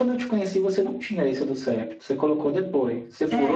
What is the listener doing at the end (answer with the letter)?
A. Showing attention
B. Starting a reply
B